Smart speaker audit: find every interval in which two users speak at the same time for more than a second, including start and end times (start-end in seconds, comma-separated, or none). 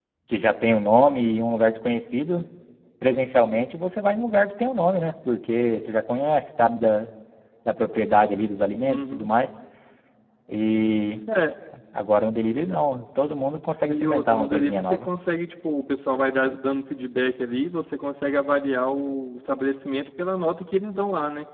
13.8-15.1